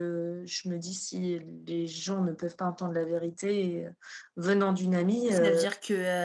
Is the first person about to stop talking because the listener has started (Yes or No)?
Yes